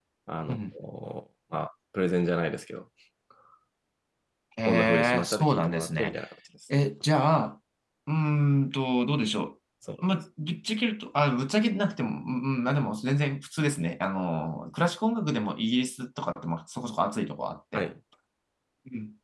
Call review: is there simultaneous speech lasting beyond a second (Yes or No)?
Yes